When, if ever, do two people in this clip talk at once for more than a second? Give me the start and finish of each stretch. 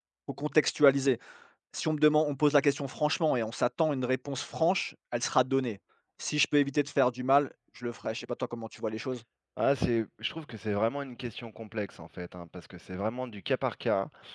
none

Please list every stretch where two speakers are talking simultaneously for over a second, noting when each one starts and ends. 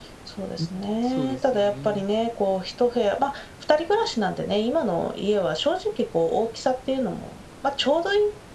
0.6-2.0

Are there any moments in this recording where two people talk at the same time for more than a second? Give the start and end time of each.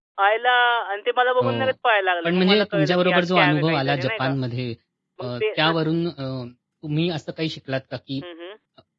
2.2-4.3

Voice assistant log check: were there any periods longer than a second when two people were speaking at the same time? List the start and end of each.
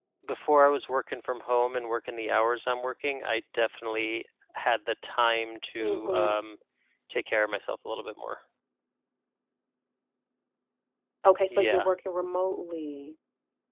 none

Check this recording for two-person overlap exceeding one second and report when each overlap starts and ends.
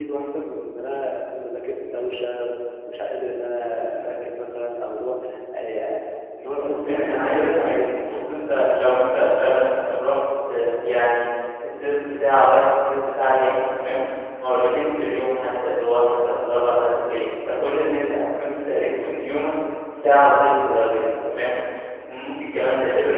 6.5-8.1

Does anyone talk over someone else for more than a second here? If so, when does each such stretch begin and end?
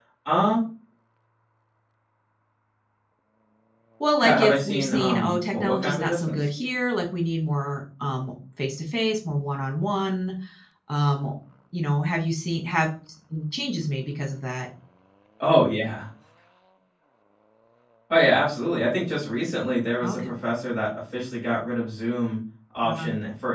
4.2-6.4

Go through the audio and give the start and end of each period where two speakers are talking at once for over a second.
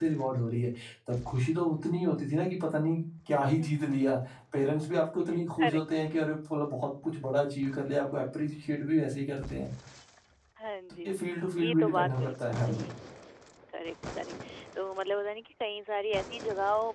11.6-12.9

